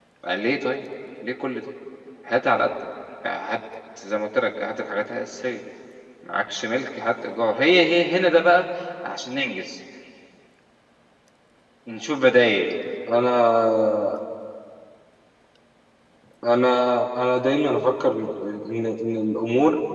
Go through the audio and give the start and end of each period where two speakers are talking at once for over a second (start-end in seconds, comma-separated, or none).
none